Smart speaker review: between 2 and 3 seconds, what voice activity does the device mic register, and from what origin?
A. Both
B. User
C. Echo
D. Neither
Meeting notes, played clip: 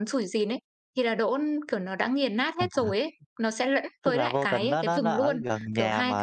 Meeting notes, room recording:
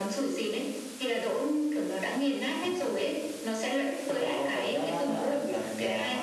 C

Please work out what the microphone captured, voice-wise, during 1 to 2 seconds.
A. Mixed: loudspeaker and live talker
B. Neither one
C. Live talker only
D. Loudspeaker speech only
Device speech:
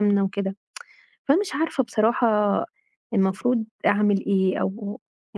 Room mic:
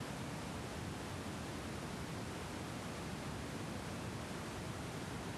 B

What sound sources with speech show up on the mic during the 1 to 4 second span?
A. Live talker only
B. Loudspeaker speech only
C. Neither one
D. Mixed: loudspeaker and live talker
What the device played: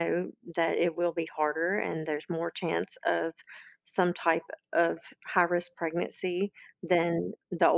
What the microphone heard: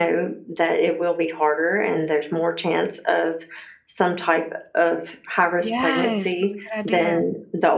B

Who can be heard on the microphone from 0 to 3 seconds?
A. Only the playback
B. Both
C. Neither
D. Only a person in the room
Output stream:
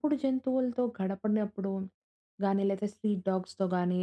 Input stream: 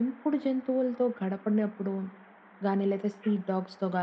A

